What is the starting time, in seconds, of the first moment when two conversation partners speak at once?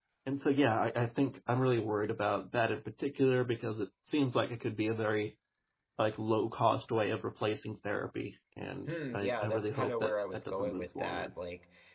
9 s

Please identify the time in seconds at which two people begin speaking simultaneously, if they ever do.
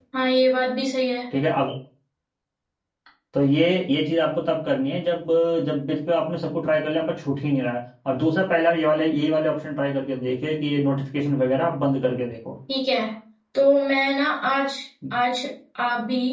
none

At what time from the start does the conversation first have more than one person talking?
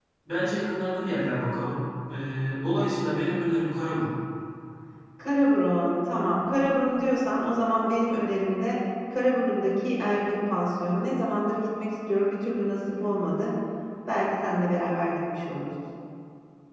none

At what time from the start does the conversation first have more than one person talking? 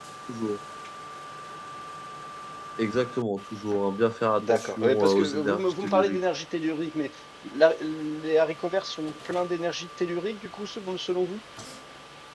4 s

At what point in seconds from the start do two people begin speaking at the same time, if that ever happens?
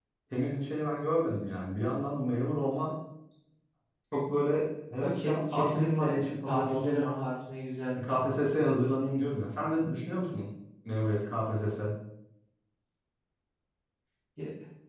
5 s

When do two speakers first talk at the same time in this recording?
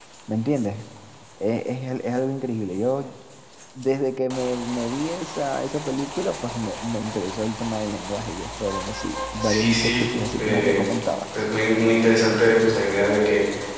9 s

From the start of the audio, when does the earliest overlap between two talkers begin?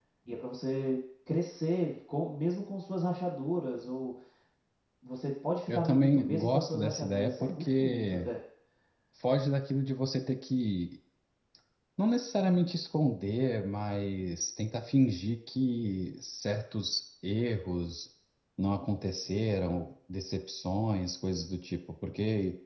6 s

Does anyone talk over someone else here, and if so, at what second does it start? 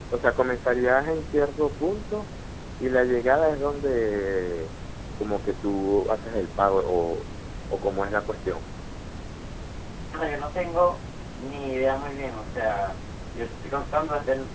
none

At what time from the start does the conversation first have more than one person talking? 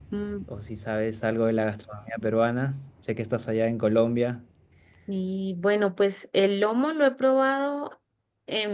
none

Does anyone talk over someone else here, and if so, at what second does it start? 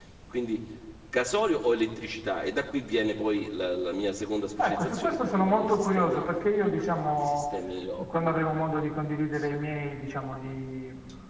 5 s

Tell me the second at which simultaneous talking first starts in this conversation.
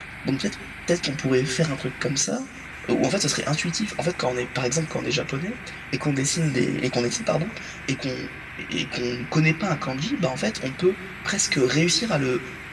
none

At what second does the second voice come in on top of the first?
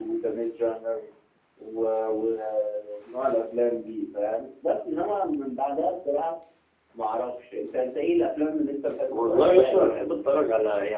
9 s

